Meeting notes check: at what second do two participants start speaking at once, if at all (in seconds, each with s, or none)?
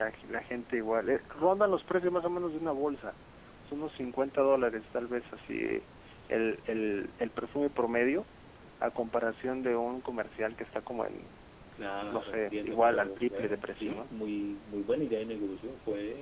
12.1 s